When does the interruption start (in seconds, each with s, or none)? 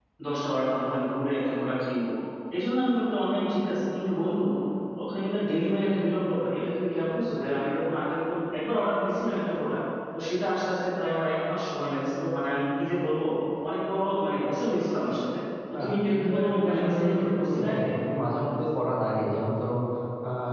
15.7 s